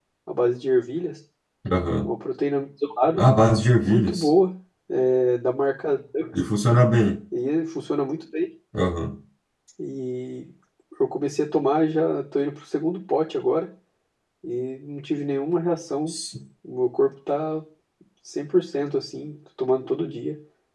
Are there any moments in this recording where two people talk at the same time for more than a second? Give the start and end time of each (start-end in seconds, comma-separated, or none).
none